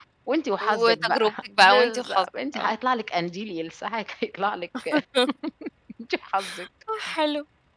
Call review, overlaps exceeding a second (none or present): present